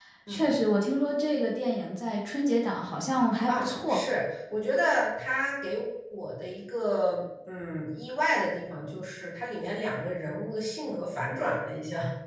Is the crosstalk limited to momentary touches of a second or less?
Yes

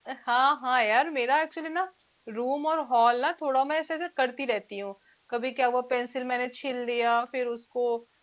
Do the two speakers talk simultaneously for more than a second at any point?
No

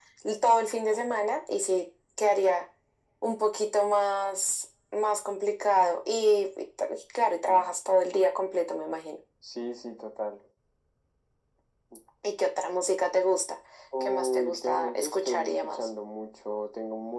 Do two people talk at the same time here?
Yes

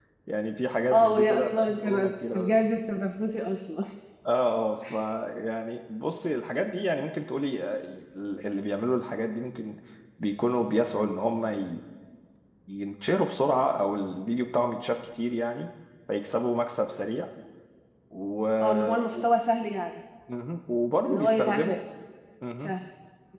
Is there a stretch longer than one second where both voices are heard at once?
Yes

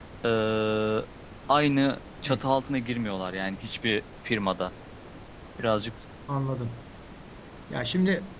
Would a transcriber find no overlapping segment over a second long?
Yes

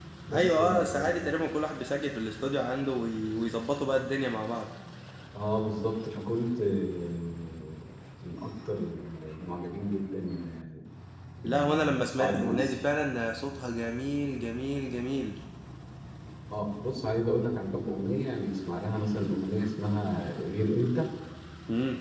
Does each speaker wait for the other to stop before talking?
No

